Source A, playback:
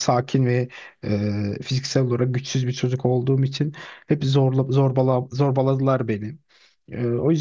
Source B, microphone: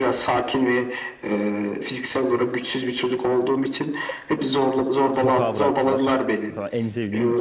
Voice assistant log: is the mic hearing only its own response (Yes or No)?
No